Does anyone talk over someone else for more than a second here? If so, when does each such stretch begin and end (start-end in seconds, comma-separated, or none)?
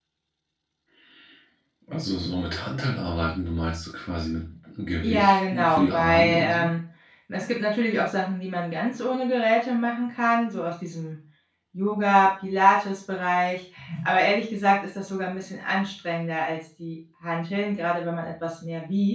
5.0-6.7